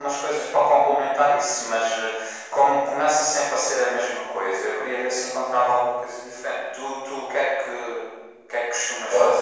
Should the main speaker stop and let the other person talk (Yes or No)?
Yes